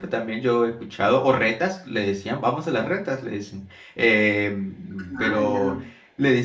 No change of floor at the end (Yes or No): Yes